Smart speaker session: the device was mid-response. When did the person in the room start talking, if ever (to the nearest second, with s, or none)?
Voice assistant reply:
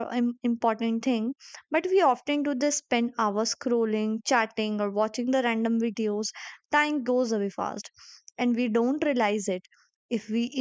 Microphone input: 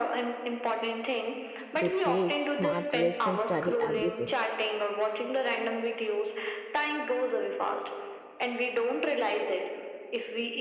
2 s